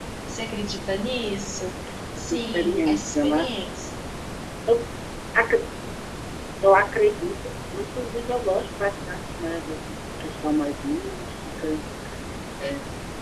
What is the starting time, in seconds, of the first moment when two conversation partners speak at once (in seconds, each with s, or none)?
2.2 s